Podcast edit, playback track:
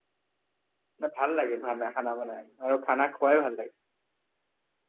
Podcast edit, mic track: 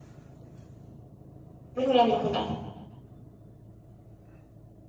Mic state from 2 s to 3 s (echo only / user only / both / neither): user only